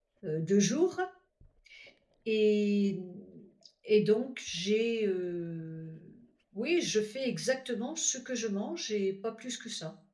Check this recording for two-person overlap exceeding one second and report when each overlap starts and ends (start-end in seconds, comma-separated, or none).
none